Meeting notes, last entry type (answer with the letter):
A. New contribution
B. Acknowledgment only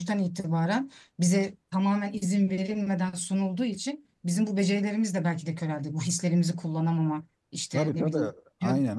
A